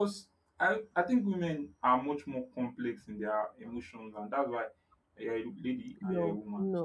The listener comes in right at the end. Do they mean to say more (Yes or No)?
Yes